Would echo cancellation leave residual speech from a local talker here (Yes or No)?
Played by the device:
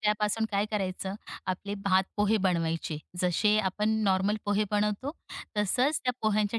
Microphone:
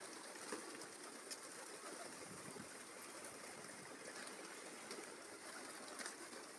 No